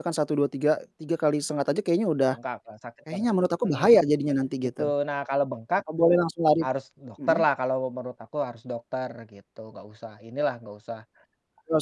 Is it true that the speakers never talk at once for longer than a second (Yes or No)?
Yes